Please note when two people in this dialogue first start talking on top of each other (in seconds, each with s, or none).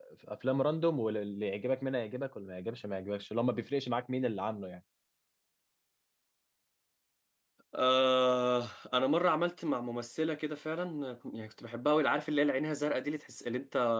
none